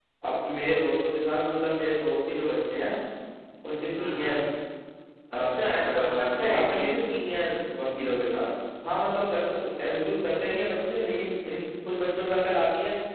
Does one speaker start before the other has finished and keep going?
Yes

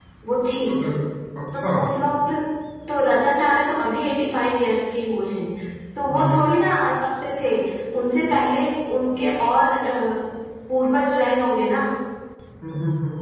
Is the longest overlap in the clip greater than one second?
No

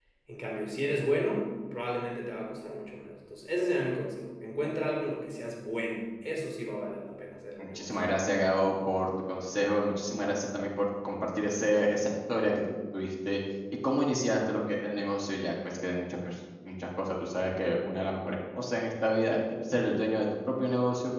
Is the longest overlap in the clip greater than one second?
No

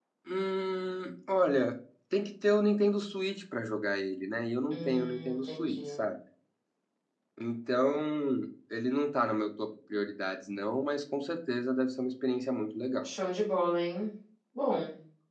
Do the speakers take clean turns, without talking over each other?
No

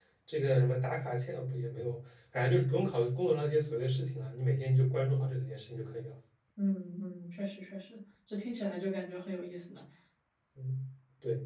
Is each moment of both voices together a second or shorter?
Yes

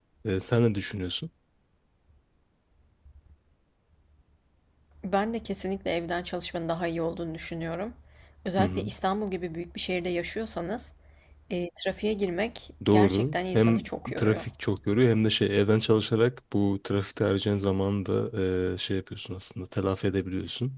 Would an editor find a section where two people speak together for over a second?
Yes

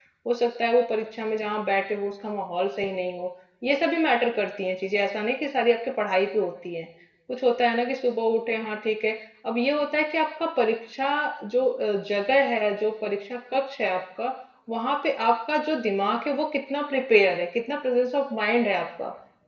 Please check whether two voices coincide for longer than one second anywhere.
No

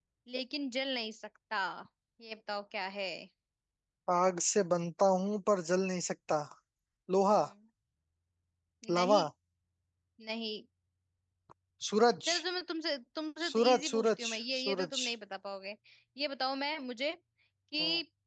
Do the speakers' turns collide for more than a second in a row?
Yes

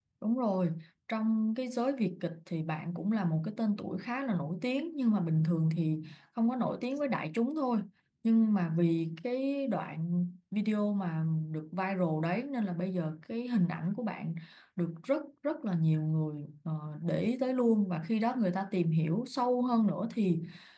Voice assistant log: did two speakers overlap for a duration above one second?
No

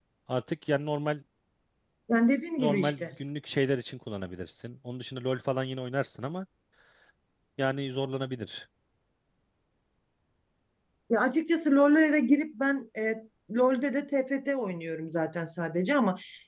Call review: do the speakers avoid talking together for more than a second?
Yes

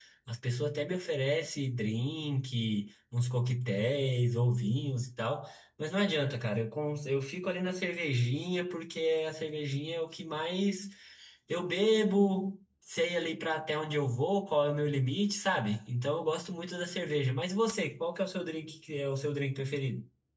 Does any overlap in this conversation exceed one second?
No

